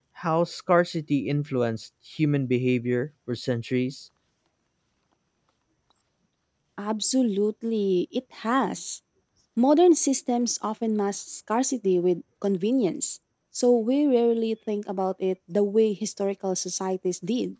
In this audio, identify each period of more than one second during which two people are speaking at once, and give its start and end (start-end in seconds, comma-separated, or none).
none